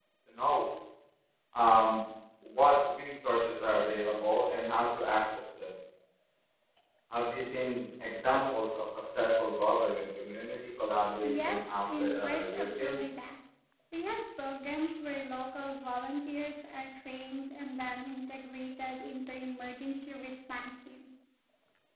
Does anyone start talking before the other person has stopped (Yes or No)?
Yes